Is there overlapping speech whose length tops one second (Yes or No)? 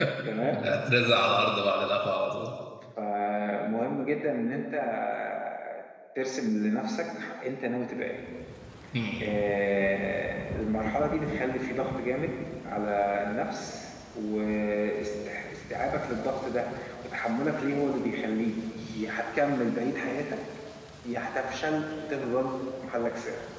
No